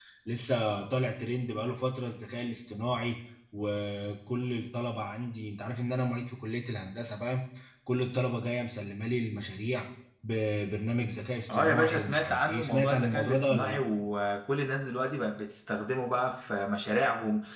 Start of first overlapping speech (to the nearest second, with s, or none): 11 s